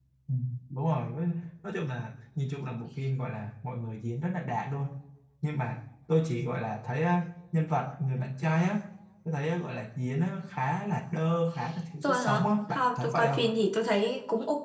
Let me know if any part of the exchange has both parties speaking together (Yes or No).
Yes